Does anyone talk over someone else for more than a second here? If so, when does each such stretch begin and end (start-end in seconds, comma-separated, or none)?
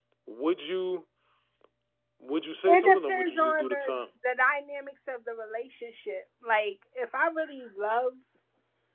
2.7-4.0